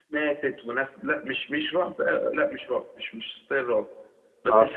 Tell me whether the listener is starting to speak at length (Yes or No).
No